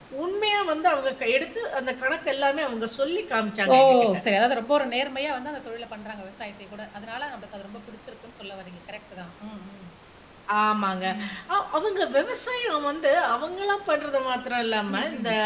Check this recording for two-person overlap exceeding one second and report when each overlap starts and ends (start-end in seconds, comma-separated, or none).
none